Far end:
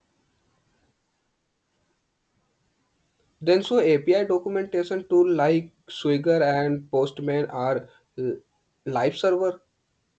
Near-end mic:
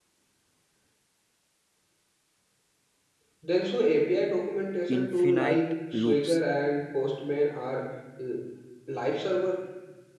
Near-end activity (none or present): present